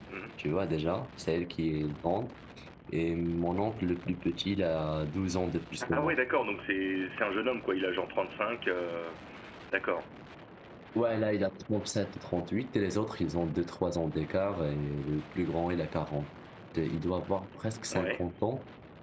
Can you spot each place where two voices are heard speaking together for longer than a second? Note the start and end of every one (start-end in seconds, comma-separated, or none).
none